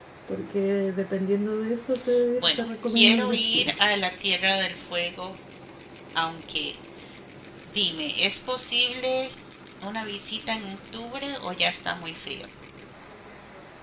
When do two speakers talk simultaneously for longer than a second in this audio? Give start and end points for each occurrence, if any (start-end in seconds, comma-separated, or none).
2.4-3.8